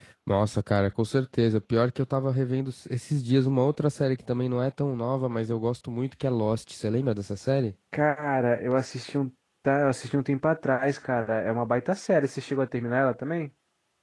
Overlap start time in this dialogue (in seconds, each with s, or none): none